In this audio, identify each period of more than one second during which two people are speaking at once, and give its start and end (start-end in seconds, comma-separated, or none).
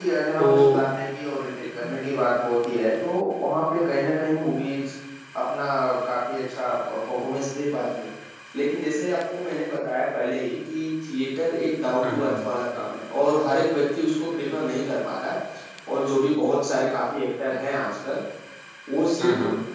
none